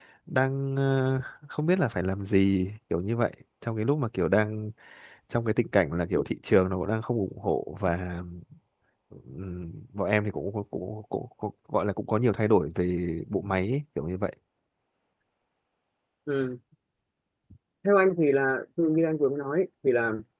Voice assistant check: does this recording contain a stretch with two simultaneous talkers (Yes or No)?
No